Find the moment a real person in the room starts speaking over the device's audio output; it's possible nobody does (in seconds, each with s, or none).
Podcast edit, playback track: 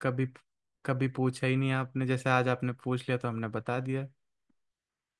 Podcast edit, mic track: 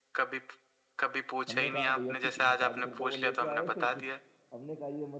1.5 s